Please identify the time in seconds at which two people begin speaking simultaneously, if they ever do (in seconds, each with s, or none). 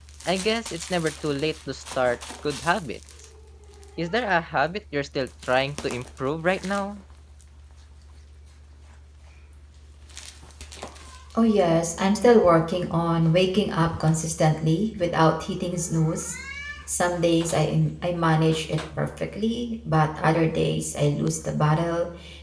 none